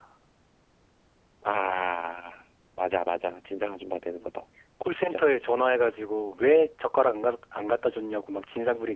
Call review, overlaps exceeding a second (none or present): none